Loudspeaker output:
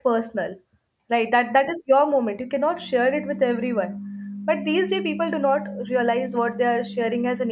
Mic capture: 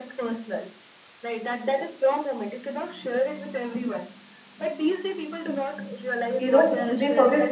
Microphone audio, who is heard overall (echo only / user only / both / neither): both